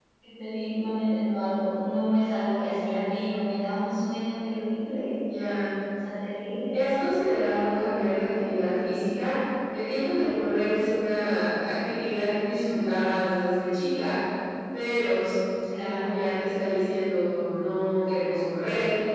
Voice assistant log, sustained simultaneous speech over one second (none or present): none